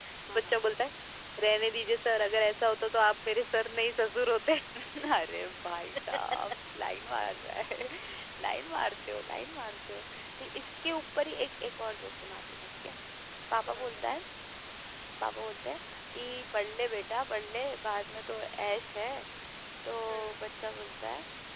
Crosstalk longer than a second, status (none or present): none